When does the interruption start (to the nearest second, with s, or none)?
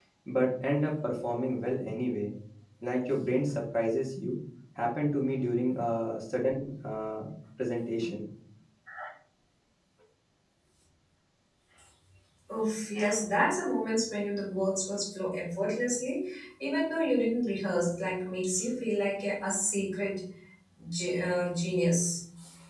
none